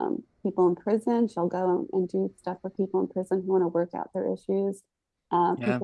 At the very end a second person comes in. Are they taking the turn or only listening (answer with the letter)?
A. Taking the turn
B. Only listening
B